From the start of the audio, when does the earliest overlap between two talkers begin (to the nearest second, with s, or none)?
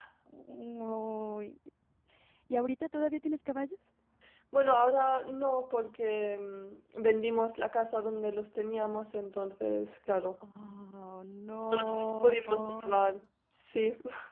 12 s